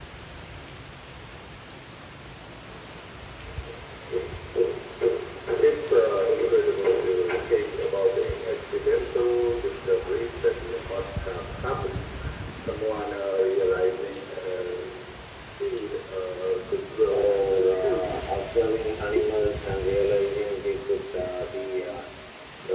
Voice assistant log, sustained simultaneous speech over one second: present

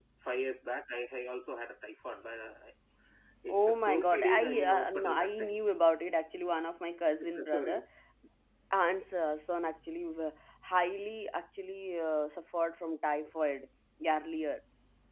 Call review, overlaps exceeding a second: present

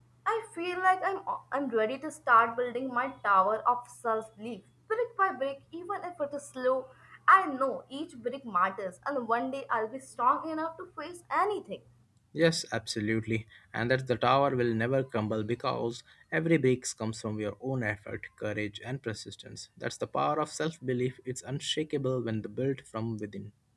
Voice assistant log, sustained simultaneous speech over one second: none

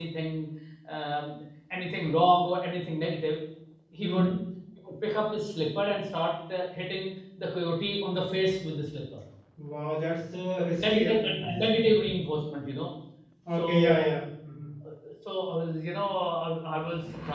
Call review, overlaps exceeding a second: present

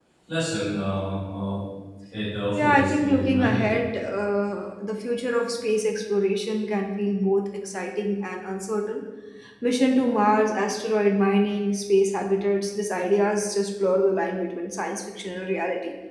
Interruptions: present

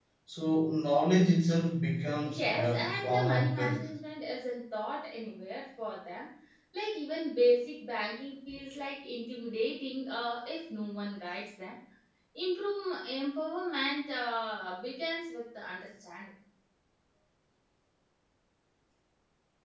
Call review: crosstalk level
present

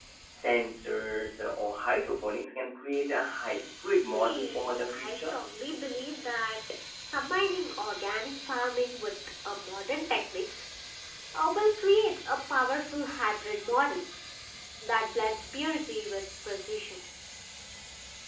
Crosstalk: present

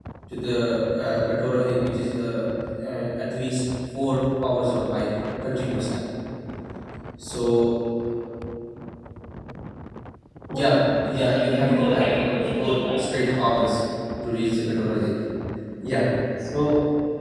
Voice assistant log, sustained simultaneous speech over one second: present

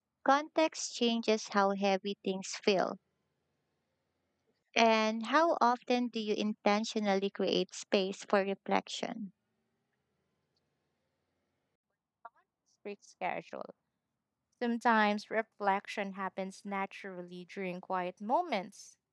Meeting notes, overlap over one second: none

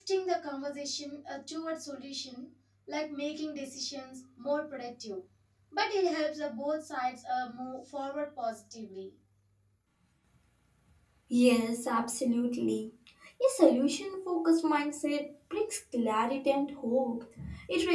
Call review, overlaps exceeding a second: none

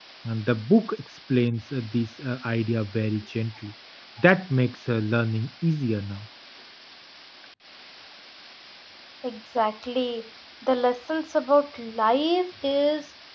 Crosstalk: none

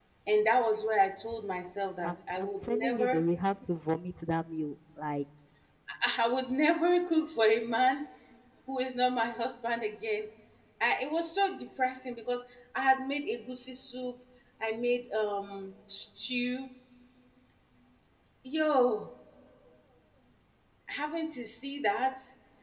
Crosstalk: present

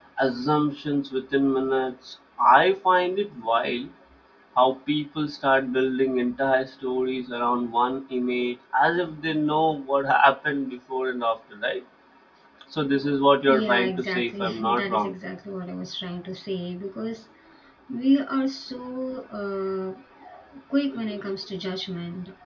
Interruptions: present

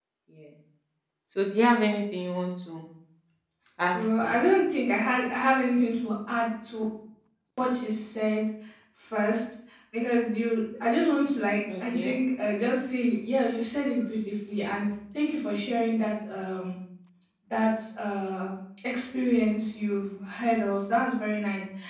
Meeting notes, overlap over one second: none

